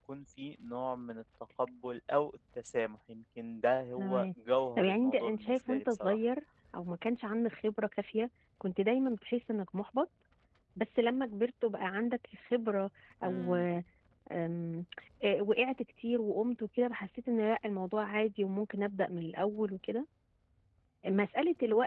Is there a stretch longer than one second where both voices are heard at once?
Yes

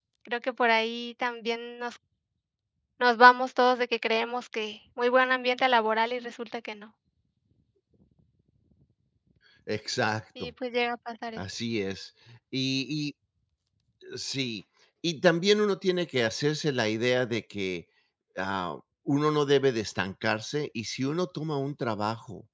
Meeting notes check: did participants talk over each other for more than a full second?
No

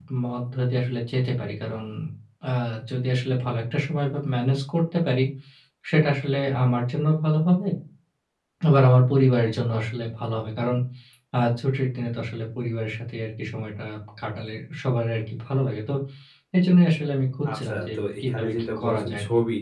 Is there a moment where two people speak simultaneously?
Yes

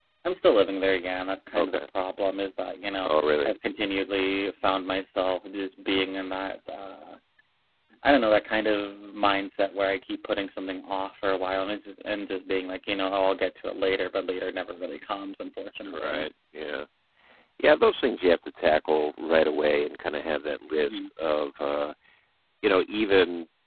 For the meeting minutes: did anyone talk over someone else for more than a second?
No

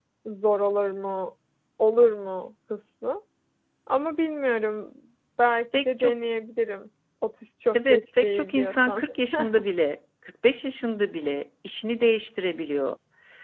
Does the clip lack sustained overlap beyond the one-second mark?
No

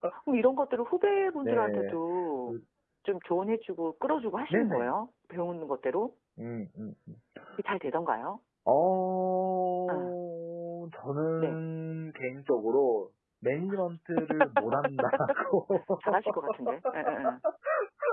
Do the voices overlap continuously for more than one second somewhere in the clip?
No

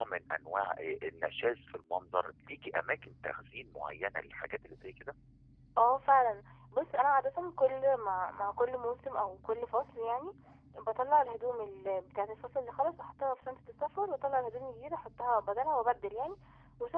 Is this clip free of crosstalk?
Yes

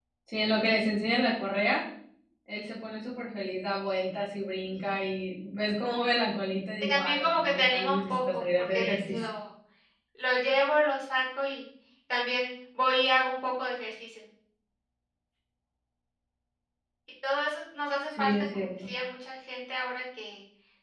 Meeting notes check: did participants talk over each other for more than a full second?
Yes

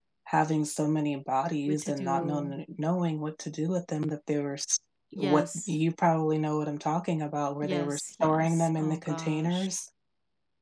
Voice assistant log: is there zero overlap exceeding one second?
No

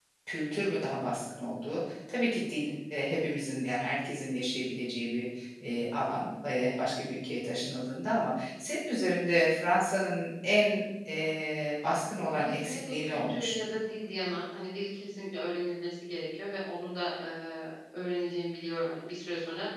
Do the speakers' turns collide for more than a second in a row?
Yes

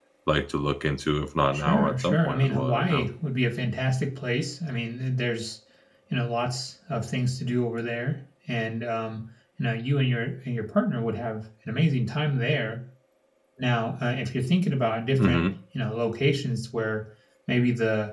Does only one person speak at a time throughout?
No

